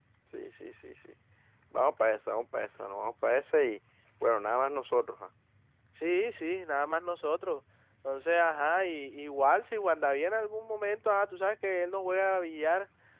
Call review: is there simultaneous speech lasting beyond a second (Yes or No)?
No